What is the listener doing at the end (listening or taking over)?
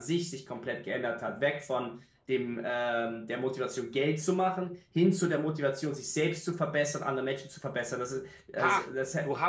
taking over